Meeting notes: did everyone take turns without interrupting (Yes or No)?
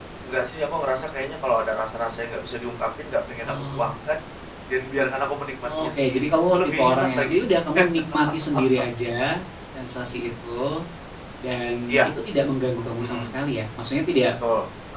No